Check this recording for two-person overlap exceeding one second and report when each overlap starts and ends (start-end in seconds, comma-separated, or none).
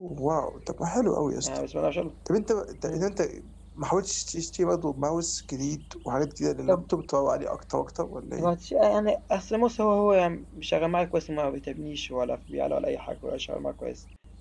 none